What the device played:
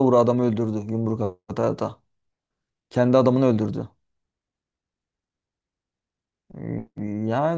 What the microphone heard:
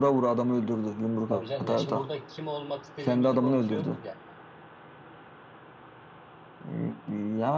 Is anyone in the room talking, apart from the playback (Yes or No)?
Yes